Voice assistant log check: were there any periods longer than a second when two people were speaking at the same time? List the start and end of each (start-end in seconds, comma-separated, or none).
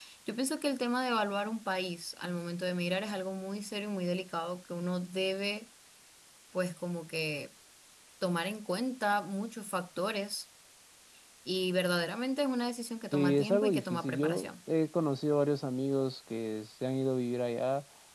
13.1-14.5